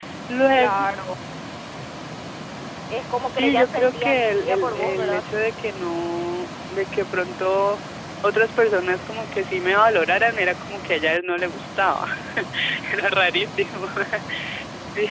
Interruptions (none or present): present